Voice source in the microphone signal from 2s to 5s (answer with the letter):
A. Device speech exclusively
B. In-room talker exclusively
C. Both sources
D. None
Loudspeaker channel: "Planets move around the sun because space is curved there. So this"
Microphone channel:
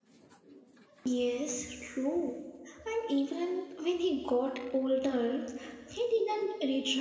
B